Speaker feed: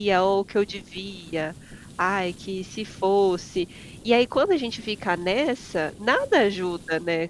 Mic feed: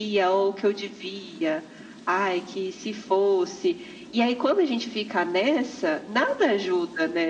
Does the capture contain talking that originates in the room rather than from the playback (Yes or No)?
No